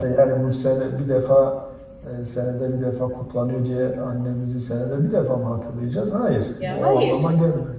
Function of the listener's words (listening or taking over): listening